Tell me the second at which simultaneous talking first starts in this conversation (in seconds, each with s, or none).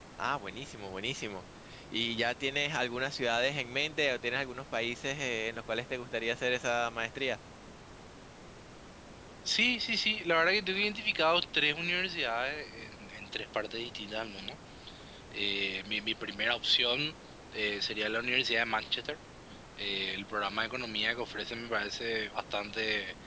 none